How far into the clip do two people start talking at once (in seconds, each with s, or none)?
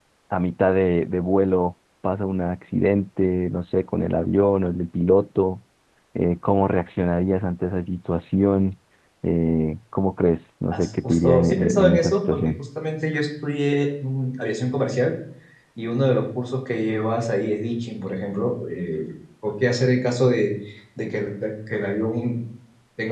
10.7 s